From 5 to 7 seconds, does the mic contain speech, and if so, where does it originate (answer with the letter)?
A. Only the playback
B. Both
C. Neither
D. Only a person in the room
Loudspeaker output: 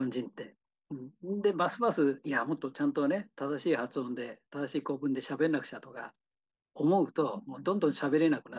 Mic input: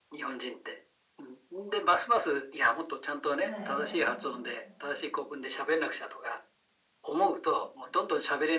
A